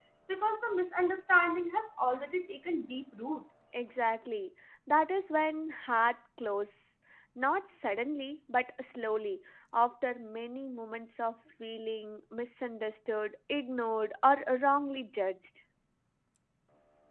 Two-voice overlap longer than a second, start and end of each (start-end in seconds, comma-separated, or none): none